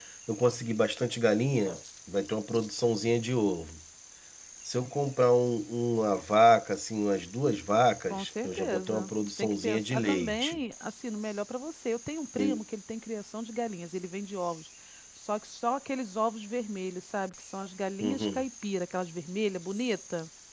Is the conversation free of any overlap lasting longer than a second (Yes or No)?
No